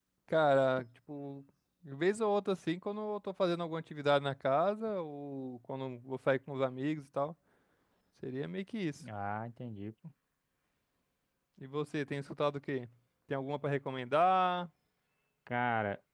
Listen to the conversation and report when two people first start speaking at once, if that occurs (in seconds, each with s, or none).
none